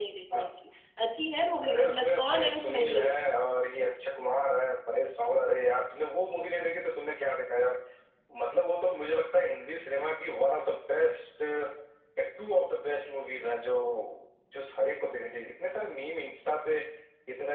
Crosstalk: present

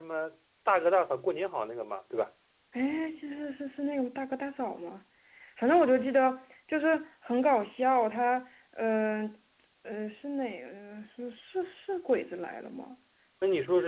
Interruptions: none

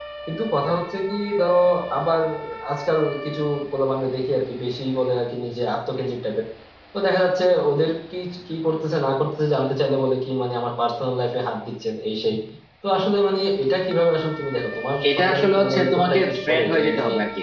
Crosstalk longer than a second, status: present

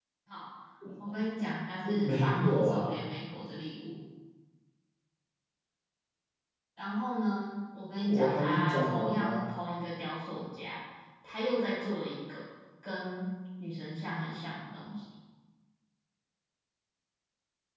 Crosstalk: present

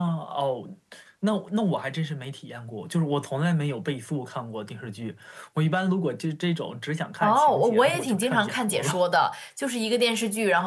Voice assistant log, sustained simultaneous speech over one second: present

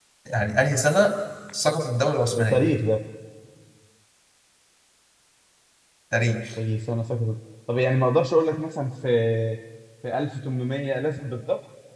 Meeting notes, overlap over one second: none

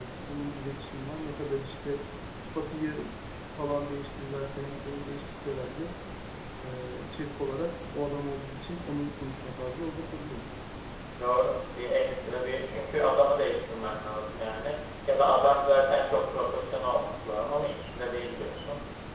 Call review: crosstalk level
none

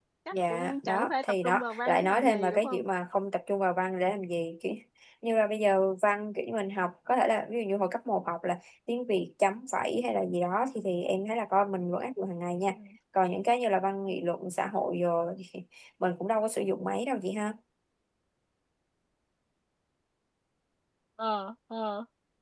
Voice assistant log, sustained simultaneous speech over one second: present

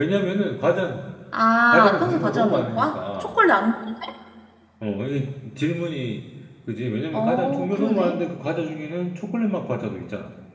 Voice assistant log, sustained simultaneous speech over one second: present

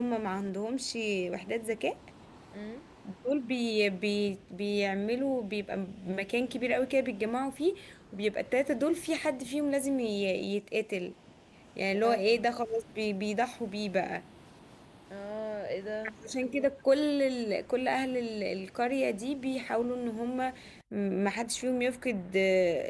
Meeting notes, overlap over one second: none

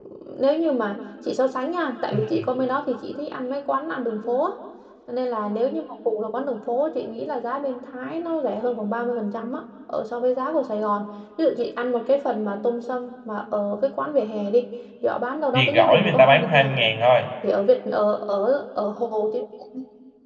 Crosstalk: present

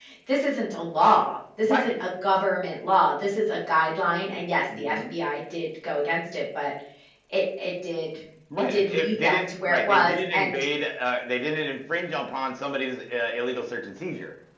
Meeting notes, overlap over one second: present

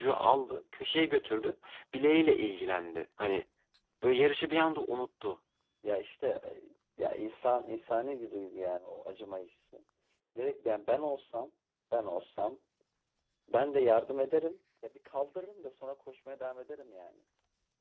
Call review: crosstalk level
none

